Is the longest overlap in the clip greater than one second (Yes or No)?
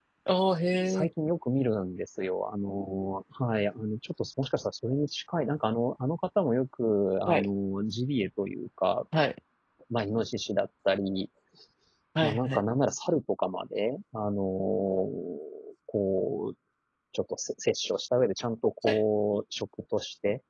No